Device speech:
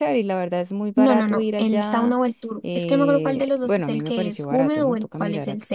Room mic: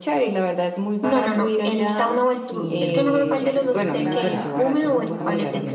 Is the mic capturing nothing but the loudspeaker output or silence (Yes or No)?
No